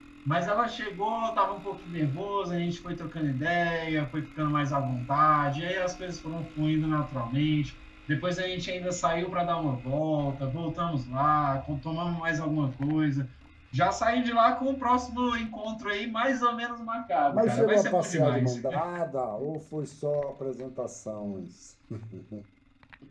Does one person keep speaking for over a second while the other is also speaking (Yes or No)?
Yes